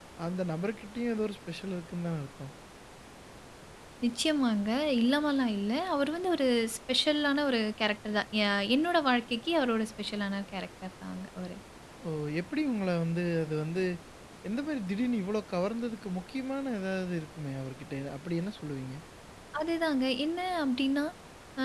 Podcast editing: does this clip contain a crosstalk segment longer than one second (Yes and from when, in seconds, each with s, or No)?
No